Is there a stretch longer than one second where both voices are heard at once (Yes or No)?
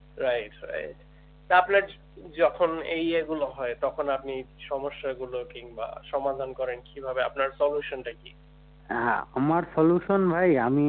No